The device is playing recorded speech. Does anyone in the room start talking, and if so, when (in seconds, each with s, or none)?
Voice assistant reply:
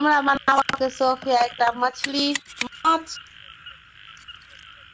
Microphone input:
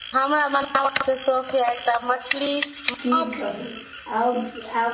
3.0 s